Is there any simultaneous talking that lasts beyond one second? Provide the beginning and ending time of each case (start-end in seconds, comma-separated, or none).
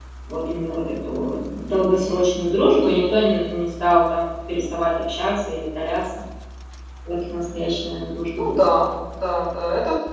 none